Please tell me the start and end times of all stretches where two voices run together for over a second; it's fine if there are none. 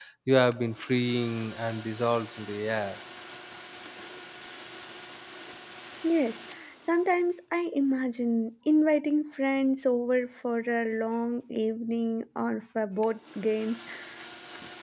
none

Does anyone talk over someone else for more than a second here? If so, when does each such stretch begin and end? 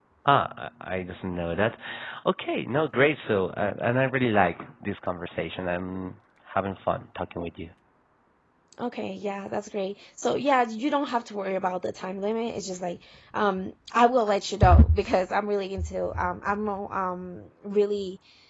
none

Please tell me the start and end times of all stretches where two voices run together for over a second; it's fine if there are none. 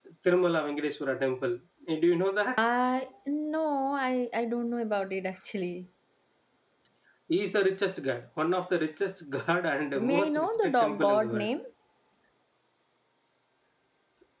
10.0-11.5

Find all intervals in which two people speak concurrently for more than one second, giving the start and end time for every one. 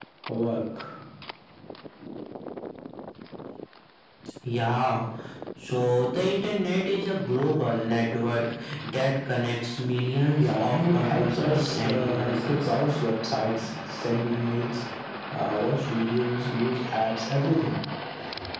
10.4-12.6

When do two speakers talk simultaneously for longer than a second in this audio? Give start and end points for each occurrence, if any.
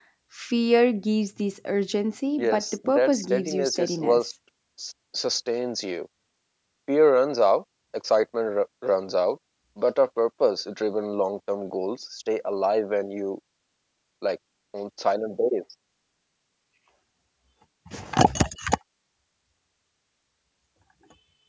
2.4-4.2

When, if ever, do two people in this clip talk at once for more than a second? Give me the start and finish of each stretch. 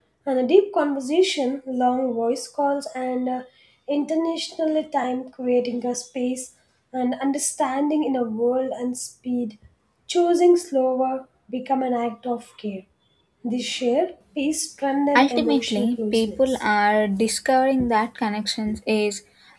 15.2-16.7

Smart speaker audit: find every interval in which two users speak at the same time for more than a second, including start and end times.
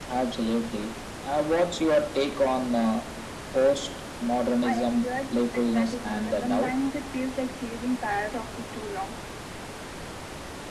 4.6-6.7

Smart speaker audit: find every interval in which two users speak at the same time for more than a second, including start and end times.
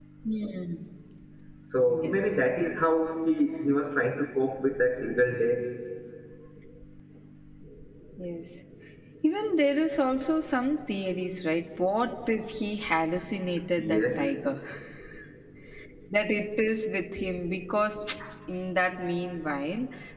none

